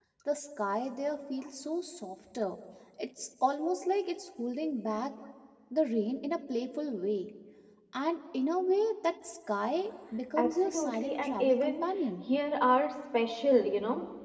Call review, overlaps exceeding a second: present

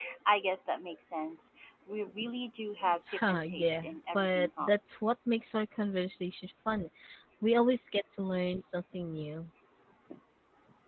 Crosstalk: present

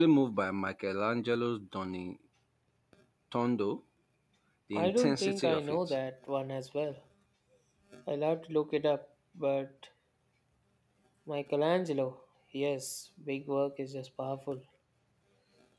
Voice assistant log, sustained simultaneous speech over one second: present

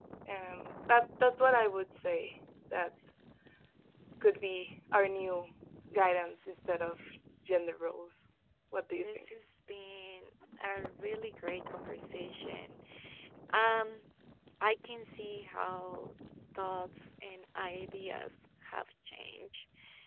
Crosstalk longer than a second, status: none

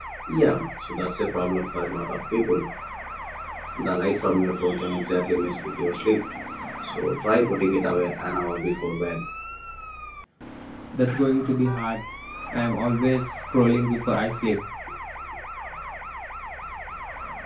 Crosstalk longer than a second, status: none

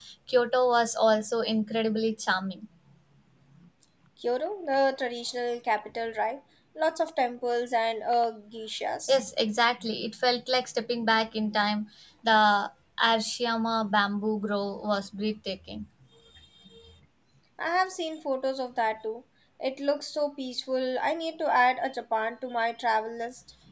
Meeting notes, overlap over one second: none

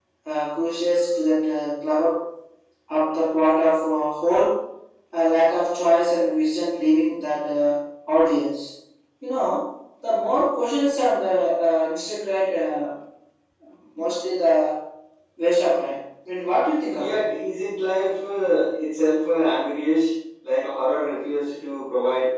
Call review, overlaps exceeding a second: none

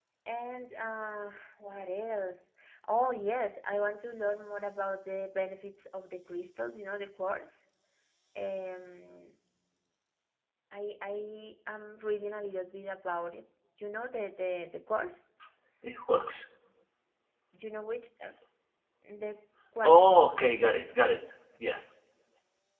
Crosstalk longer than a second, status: none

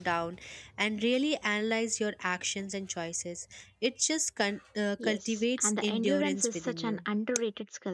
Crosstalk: present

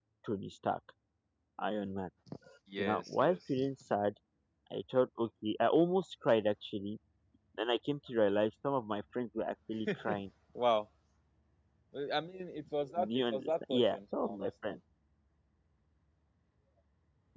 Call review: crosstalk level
present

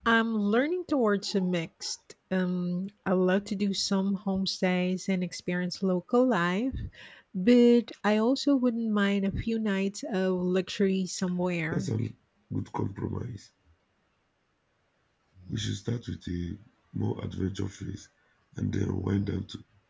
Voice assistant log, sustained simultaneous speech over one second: none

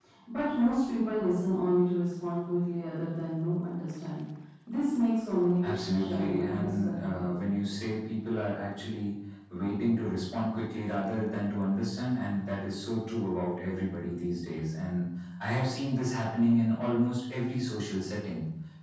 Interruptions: present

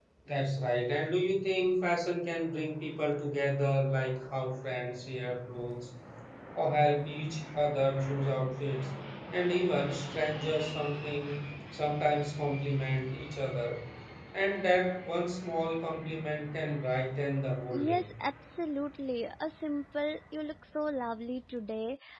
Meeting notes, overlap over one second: none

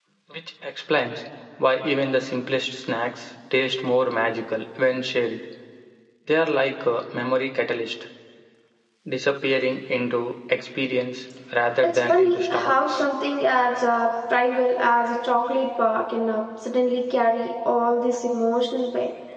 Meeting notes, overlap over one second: present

